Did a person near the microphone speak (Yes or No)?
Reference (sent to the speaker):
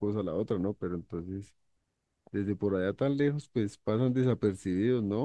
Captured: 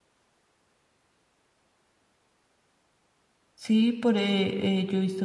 Yes